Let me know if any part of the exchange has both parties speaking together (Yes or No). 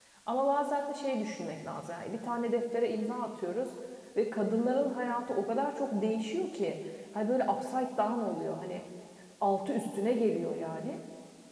No